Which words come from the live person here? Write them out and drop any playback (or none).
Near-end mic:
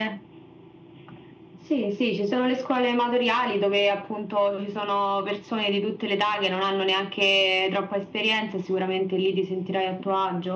none